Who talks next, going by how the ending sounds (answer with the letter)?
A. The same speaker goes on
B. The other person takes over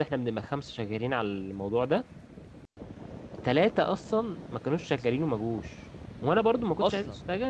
A